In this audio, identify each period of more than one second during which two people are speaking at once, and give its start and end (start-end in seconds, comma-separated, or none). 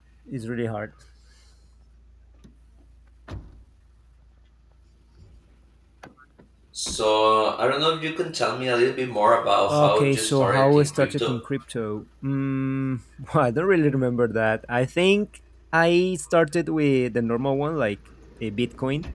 9.7-11.4